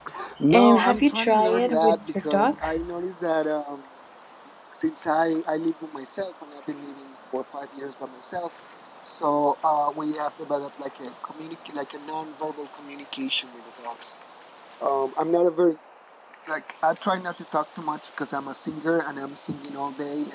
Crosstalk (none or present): present